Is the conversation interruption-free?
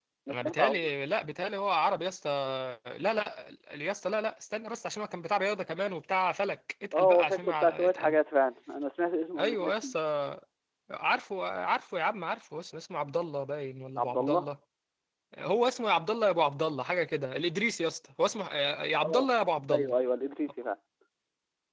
No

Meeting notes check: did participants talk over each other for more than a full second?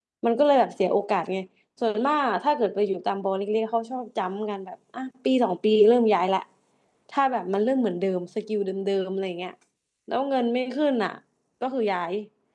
No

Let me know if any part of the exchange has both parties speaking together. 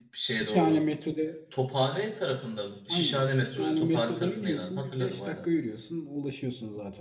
Yes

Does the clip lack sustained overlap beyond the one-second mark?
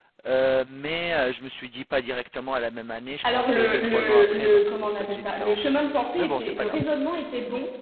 No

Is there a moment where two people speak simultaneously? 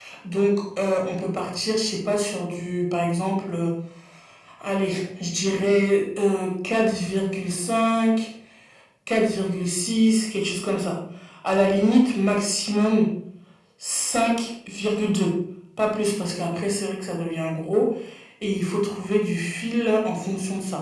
No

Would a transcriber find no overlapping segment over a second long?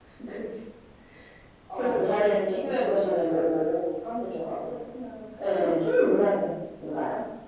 No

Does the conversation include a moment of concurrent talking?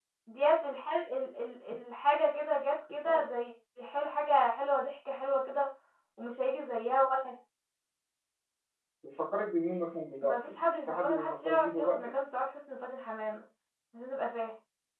Yes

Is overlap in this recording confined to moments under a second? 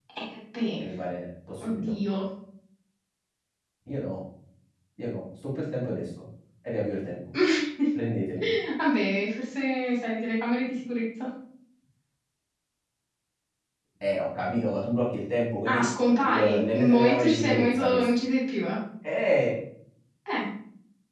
No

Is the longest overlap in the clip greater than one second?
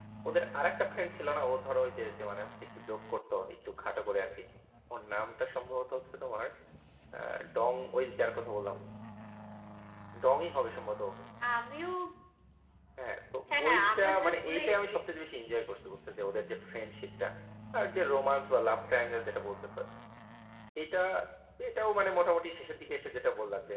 Yes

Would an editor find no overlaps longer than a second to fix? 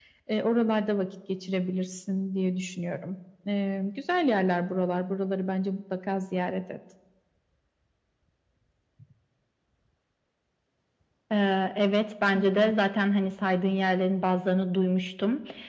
Yes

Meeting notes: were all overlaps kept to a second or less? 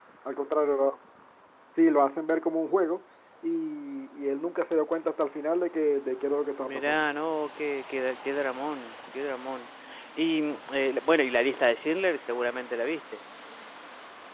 Yes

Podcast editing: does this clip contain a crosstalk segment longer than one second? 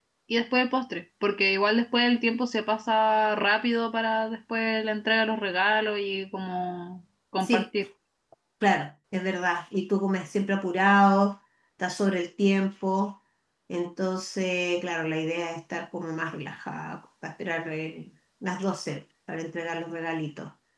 No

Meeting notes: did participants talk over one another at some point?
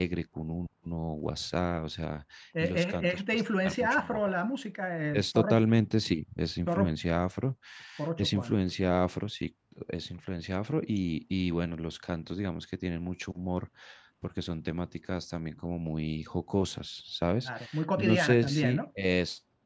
Yes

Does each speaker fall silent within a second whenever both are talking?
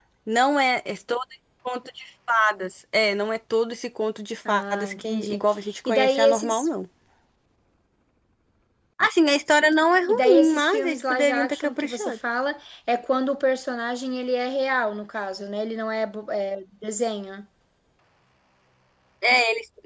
No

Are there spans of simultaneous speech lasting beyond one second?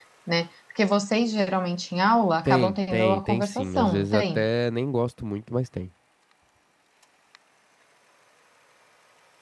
Yes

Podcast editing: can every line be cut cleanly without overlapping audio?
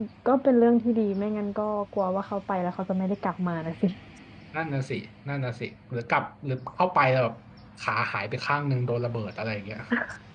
Yes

